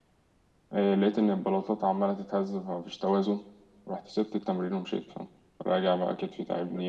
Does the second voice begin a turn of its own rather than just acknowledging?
Yes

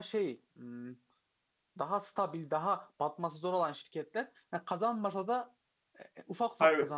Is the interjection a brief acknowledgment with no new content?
Yes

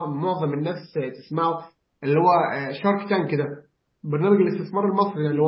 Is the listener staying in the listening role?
Yes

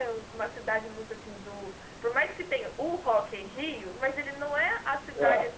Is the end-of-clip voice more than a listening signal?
No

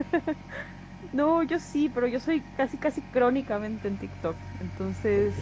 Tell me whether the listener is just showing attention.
No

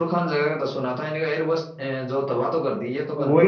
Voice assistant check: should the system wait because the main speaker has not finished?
No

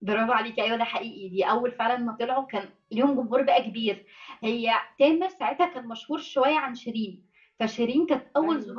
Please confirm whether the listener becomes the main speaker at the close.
No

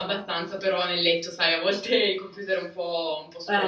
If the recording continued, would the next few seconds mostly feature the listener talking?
Yes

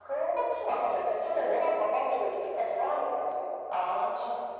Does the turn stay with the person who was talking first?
No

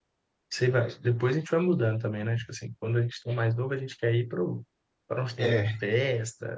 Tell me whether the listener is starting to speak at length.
No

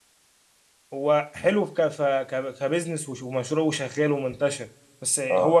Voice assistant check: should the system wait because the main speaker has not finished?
Yes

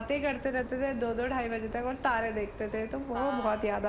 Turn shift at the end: Yes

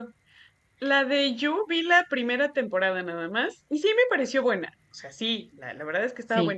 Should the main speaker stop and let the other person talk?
No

